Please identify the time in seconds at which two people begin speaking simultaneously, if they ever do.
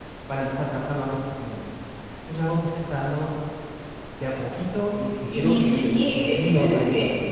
5.3 s

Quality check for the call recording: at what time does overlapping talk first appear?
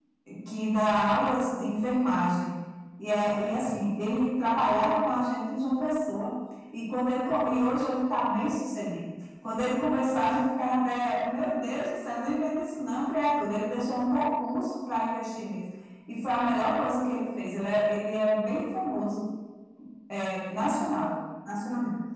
none

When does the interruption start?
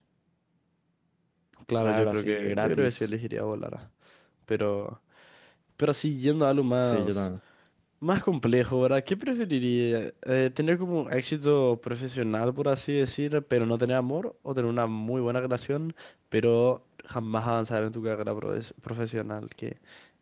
1.8 s

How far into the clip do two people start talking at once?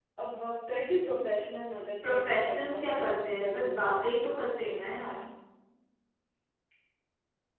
2.0 s

